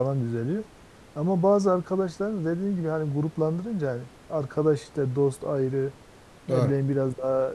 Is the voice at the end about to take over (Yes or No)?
No